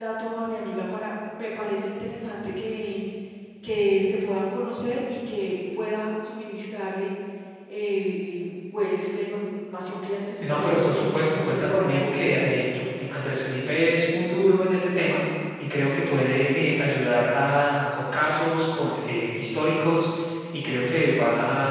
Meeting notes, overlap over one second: present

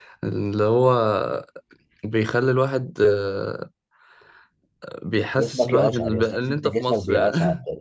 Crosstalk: present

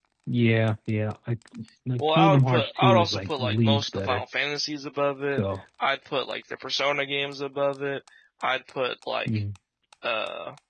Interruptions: present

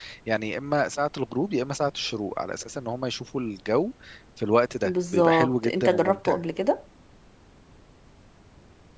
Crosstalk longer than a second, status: present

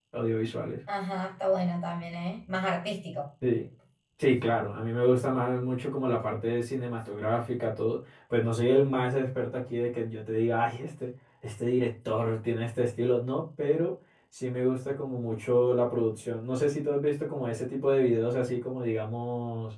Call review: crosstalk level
none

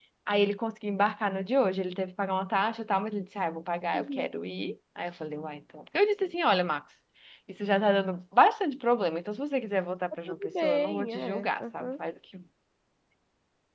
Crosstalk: present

